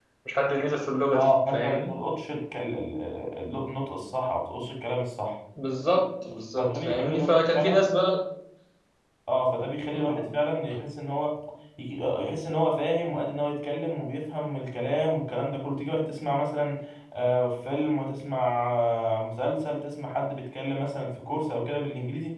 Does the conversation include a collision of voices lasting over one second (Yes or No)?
Yes